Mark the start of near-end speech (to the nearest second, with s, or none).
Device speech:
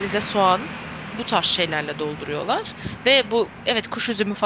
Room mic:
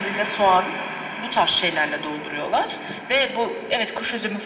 none